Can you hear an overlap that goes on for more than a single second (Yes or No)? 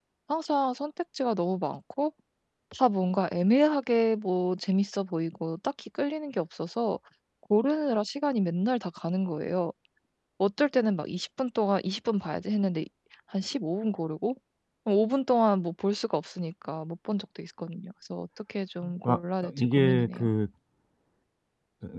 Yes